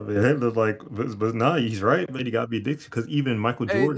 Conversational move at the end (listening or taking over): listening